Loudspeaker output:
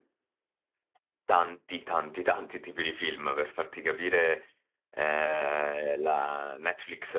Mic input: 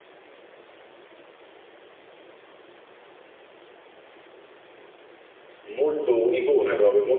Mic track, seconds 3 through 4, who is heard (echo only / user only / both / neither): neither